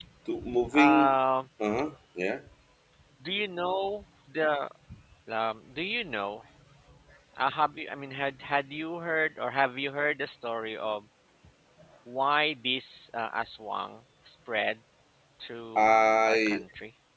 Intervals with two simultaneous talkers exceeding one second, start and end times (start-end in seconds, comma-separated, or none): none